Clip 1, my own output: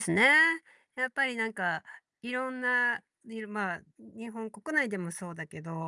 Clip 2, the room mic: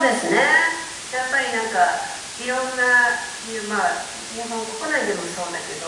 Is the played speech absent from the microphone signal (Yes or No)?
No